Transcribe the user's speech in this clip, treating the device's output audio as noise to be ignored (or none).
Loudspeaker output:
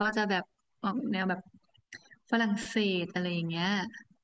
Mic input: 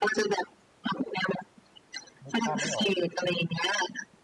นึกภาพไม่ออก